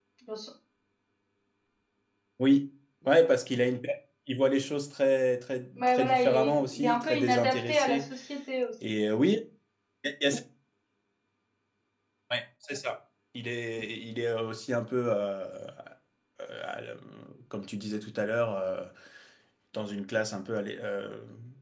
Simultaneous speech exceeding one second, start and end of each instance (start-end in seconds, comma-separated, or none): 5.8-8.1